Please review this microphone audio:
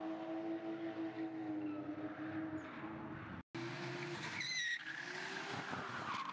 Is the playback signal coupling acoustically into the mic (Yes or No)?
No